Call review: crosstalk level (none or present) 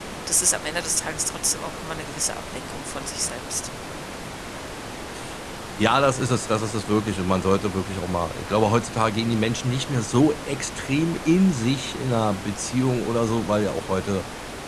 none